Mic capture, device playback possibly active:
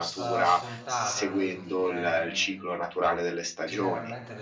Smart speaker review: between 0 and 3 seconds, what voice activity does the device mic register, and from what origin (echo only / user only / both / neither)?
both